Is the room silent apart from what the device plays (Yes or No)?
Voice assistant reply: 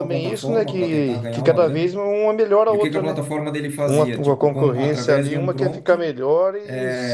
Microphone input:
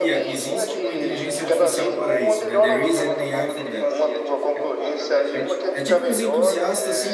No